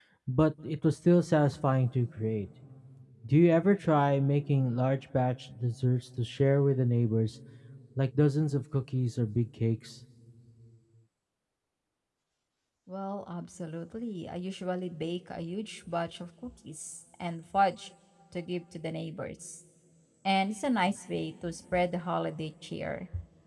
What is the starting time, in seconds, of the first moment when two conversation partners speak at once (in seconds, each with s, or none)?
none